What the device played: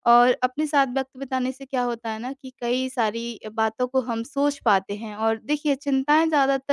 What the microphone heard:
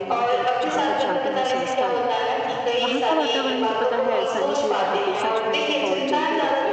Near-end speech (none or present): present